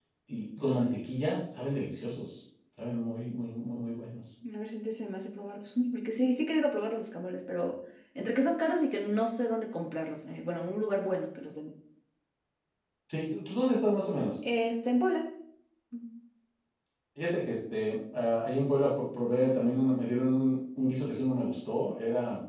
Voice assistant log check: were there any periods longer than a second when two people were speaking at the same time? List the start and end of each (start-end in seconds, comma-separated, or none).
none